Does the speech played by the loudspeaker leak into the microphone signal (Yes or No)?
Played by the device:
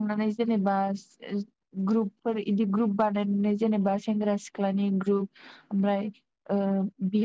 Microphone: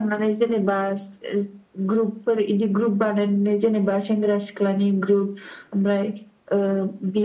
Yes